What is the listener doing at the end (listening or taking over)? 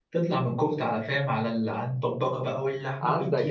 taking over